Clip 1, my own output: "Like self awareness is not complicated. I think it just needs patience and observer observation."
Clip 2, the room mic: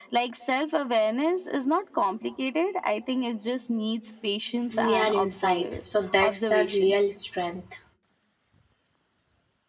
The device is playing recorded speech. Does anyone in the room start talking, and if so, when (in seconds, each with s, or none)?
4.7 s